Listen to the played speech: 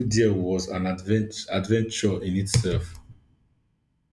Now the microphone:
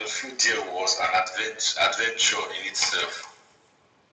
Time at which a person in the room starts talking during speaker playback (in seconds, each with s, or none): none